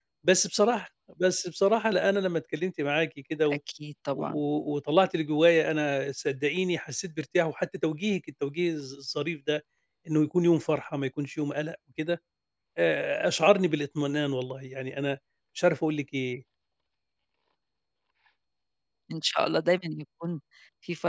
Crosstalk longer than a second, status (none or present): none